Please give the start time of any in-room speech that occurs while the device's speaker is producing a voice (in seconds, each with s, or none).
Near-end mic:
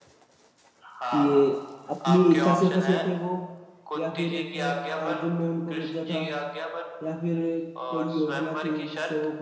1.1 s